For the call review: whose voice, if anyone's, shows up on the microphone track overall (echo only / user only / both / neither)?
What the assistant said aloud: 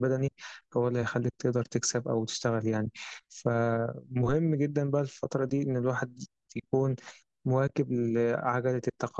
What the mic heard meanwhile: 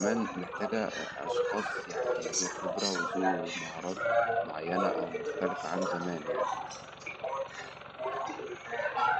both